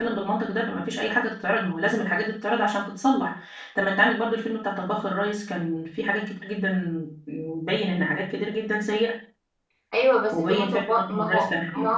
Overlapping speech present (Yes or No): Yes